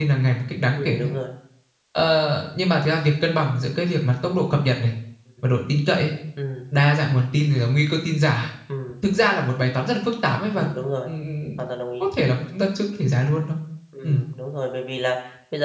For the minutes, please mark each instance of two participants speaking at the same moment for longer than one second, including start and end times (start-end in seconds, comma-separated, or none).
none